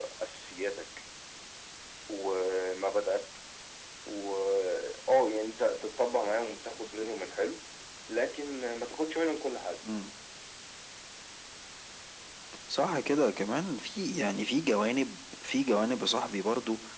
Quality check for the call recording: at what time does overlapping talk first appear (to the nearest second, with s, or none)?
none